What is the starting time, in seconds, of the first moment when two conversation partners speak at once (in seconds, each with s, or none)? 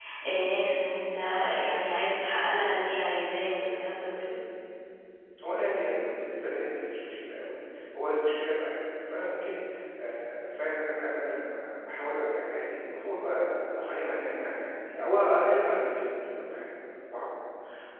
none